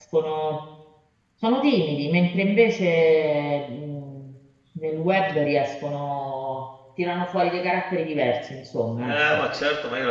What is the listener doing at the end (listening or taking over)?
taking over